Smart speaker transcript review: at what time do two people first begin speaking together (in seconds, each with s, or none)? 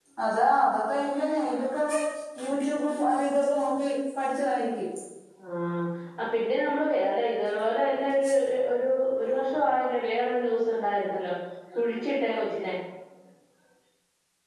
none